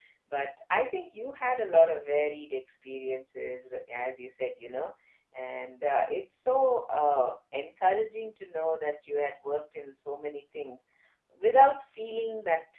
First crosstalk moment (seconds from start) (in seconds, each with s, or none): none